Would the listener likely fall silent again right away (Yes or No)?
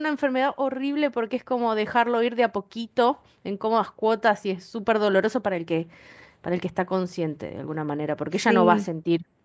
Yes